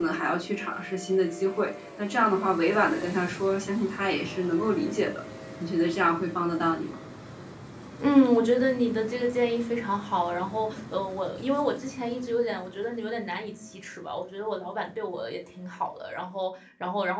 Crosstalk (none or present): none